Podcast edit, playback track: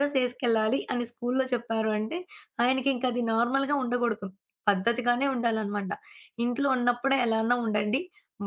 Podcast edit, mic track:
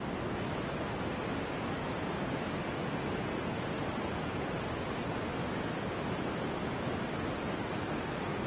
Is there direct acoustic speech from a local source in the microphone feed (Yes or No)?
No